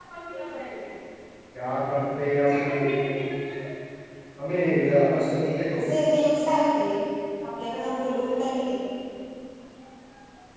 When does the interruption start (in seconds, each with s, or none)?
none